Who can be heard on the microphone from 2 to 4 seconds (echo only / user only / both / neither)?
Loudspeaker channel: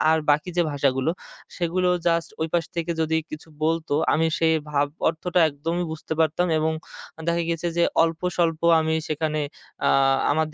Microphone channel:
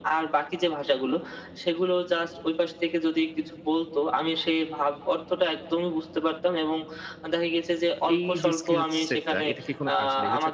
echo only